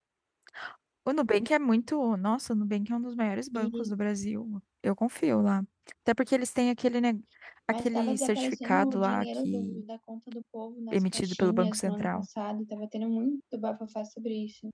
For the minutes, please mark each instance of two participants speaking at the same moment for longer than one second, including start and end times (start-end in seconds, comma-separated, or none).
7.7-9.8, 10.9-12.3